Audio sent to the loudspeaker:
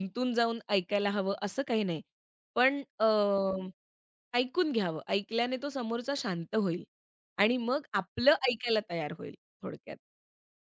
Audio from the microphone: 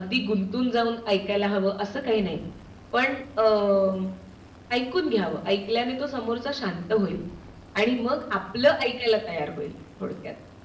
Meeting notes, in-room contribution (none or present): none